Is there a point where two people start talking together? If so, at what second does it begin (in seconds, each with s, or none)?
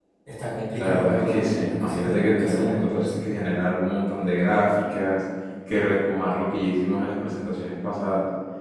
0.8 s